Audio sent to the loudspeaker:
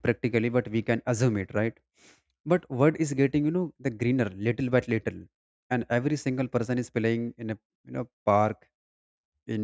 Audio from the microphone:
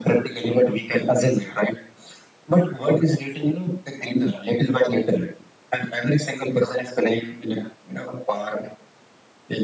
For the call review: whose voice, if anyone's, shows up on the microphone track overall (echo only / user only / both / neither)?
echo only